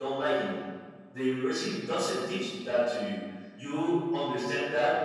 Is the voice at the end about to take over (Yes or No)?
No